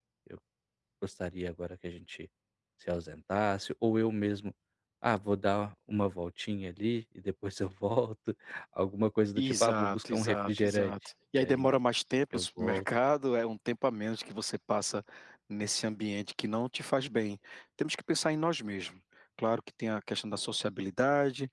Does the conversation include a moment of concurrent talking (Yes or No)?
Yes